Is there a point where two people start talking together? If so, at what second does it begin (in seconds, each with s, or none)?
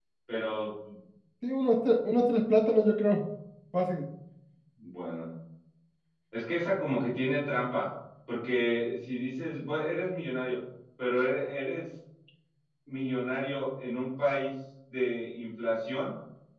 none